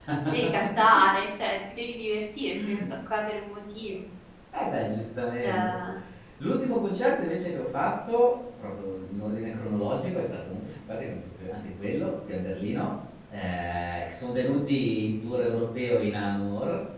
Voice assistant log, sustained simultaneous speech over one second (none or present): none